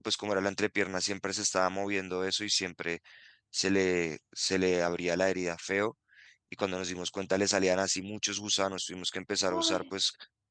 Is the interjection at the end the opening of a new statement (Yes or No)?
No